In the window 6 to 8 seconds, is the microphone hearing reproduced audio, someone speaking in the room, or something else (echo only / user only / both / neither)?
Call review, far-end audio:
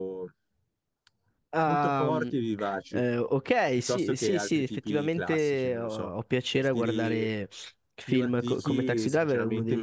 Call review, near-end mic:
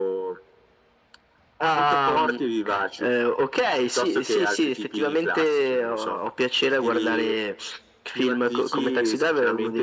echo only